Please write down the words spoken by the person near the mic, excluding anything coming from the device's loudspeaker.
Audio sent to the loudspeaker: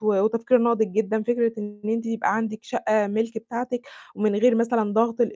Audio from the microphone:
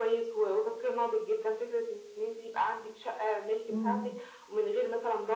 إمم.

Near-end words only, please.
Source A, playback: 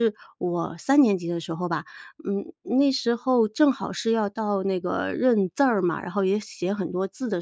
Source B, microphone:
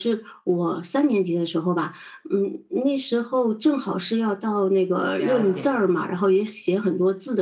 了解。

